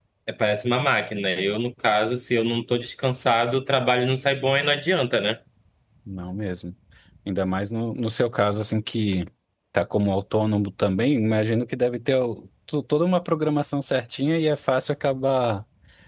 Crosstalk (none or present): none